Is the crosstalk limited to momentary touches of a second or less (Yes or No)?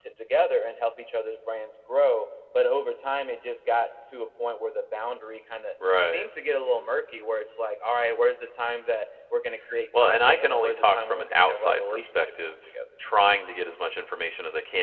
No